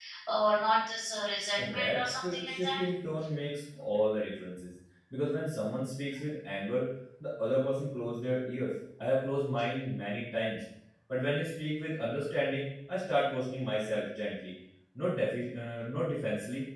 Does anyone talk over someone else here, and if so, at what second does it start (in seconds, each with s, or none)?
1.6 s